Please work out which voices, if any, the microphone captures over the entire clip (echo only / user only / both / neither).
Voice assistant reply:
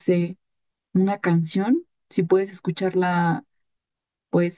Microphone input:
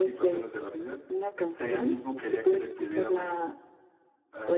both